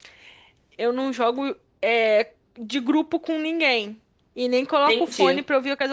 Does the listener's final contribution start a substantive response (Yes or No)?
No